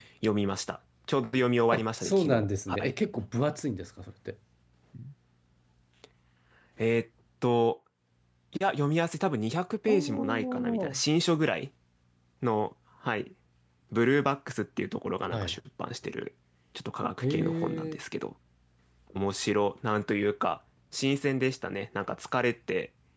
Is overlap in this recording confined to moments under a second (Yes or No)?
No